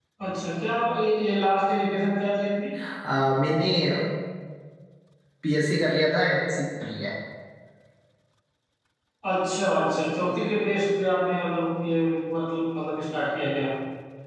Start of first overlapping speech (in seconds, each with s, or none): none